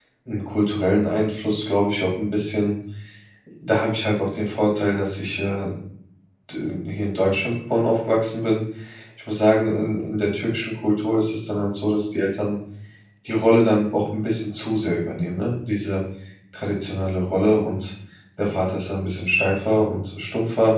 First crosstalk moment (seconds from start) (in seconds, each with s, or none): none